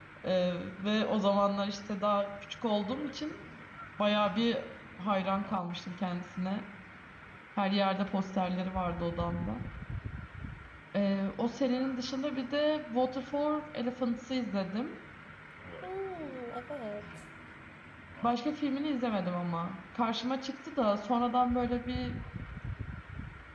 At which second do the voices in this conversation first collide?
none

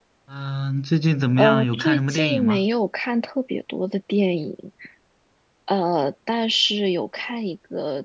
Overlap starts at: 1.4 s

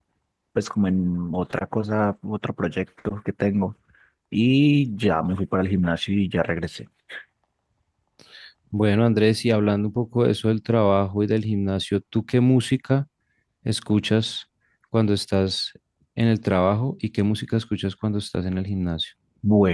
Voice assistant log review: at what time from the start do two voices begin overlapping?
none

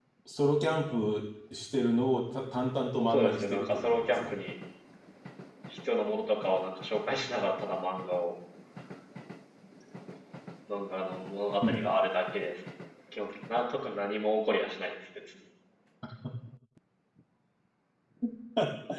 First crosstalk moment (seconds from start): 3.1 s

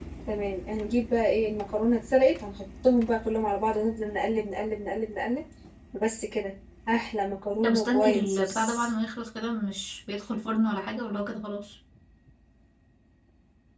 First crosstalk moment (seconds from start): 7.6 s

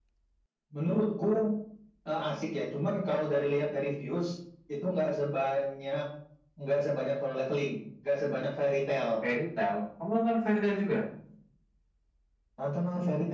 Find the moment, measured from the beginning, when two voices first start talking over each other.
none

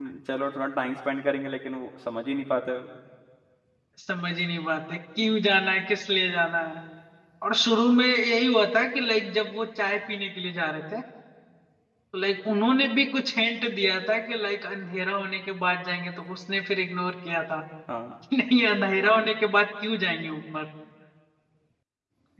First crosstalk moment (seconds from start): none

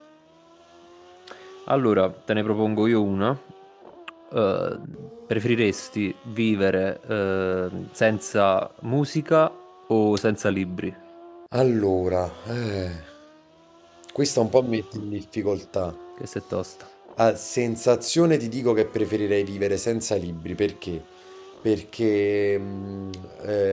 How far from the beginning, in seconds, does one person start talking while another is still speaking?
none

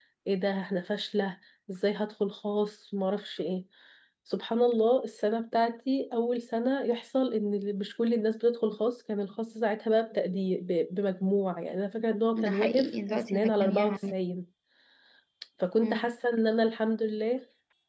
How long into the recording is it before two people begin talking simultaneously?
12.4 s

